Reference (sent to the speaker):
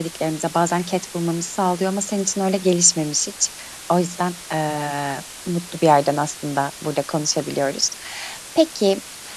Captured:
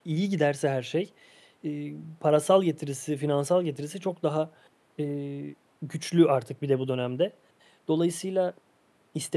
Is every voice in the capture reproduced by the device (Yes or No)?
No